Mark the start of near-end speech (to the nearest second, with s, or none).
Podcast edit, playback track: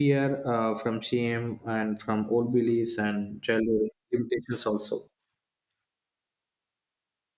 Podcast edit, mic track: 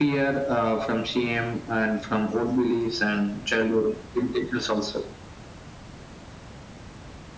none